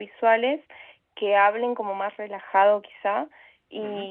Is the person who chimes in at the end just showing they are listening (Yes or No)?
Yes